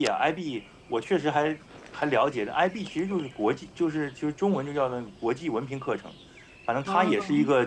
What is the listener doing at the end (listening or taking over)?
listening